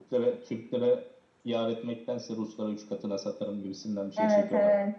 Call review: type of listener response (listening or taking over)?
taking over